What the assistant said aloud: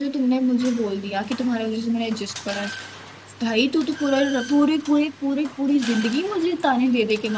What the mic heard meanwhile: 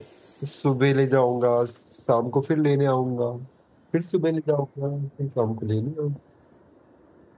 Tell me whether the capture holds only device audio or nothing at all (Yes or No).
No